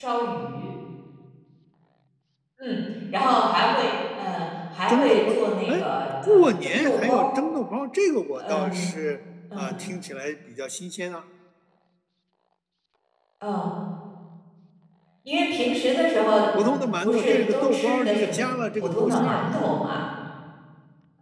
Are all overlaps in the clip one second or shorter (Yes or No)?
No